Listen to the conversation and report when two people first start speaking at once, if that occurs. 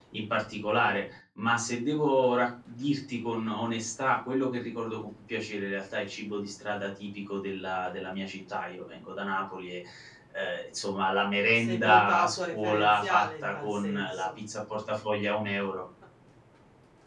11.6 s

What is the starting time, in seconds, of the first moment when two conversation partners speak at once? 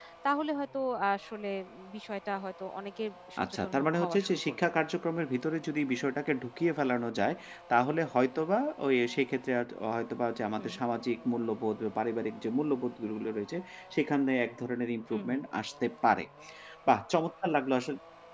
3.4 s

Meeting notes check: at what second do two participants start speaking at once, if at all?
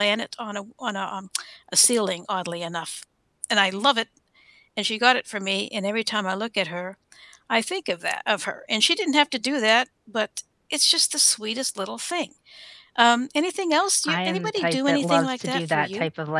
14.0 s

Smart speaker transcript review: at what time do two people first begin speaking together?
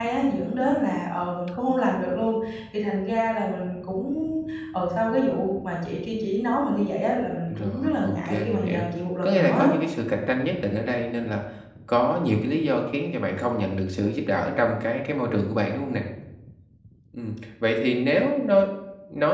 7.5 s

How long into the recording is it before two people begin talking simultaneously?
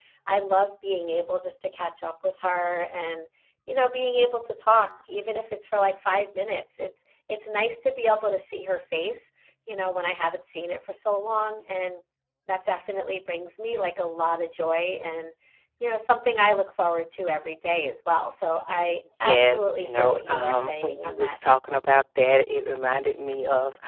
19.2 s

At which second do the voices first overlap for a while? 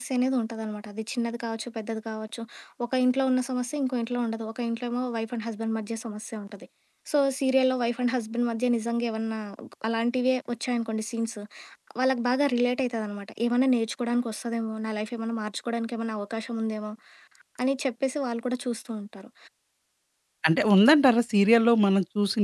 none

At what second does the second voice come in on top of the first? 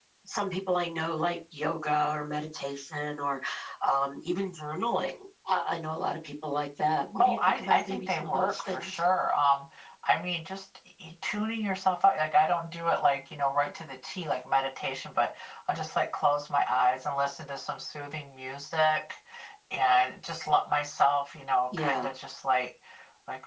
7.2 s

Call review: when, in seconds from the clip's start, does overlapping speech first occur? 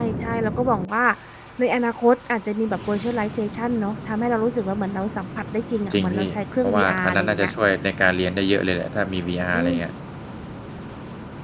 5.9 s

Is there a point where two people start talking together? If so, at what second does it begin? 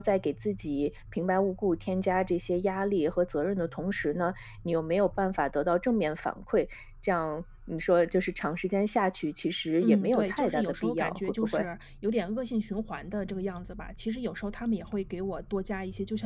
9.8 s

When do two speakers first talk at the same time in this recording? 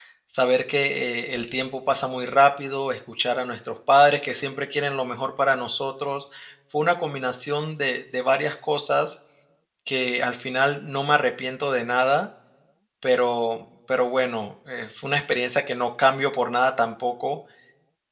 none

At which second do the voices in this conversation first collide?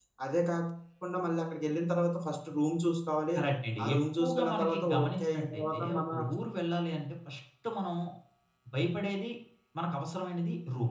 3.8 s

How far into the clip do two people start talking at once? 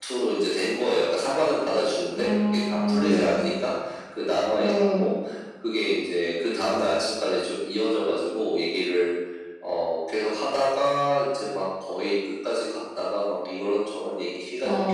2.2 s

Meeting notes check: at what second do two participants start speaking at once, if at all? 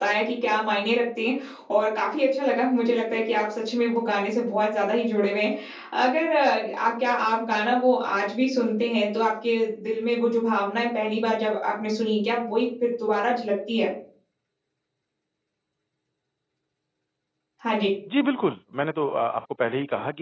none

